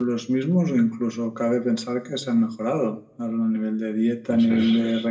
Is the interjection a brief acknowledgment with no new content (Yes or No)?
Yes